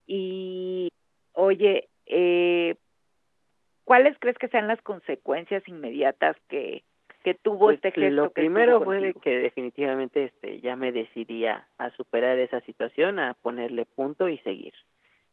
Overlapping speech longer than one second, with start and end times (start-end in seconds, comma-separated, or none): 7.7-9.1